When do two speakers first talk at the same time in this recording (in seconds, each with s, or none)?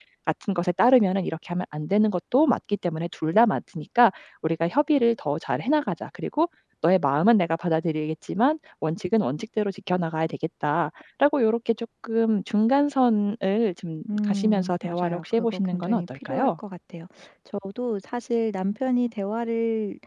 14.1 s